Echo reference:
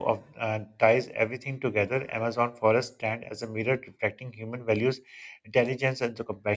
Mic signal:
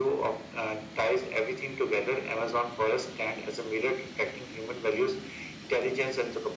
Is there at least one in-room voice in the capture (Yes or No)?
No